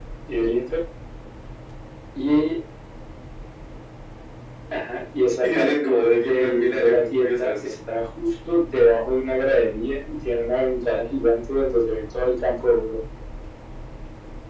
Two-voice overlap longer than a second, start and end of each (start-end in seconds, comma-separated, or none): 5.4-7.7